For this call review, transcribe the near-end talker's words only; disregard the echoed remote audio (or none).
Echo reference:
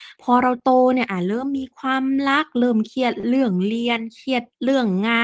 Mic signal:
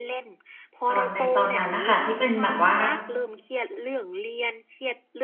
ตอนในตอนนั้นน่ะค่ะที่เป็นแบบว่า